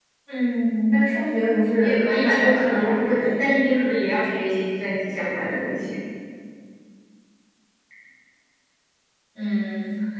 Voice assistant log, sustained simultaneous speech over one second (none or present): present